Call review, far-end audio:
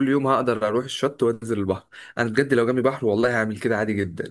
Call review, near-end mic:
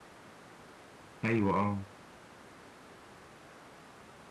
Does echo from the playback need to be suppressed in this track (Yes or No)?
No